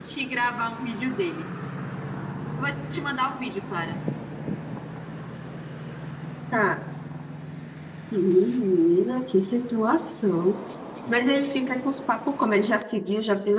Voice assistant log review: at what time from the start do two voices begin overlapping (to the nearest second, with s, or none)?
none